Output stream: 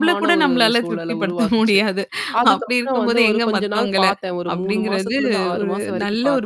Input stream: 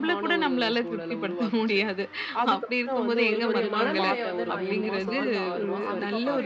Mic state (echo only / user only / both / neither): both